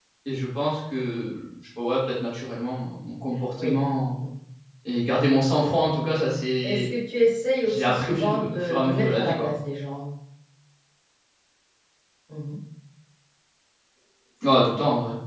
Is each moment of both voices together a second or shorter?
No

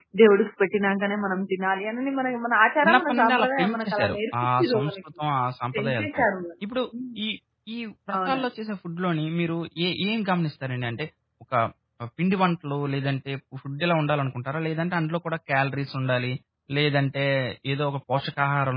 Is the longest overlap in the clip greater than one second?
Yes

